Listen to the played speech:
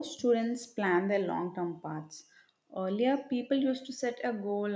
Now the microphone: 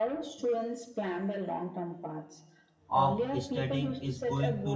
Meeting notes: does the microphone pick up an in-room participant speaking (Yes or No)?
Yes